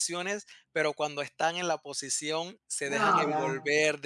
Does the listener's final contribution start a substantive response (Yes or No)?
No